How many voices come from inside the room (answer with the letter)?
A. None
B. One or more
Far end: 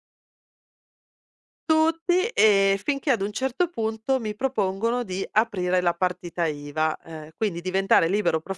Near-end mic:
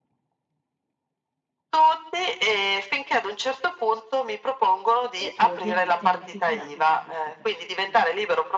B